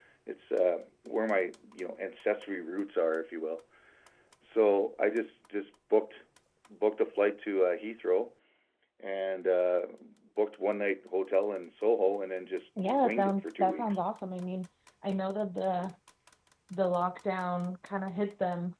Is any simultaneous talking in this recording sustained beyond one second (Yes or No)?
Yes